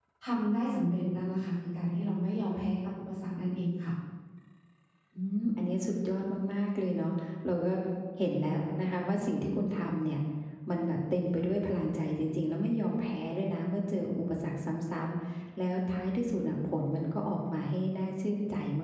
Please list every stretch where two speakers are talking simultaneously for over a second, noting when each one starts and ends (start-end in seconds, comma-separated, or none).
none